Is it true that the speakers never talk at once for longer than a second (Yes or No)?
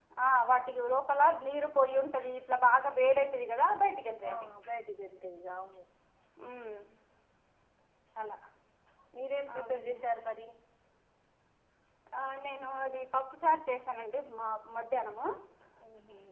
Yes